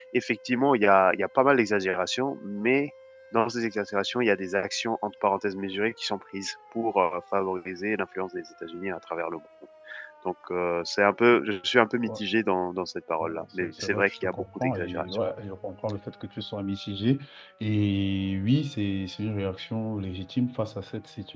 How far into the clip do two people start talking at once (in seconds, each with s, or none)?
13.2 s